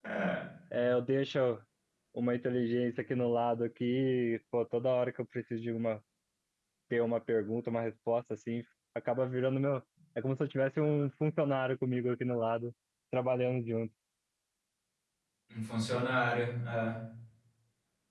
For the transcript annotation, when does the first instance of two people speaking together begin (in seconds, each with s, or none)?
none